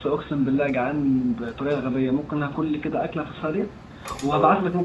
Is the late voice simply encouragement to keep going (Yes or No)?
Yes